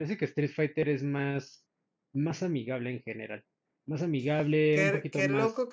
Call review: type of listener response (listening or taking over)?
taking over